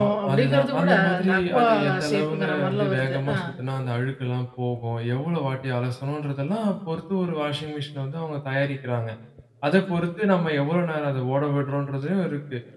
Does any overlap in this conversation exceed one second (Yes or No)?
Yes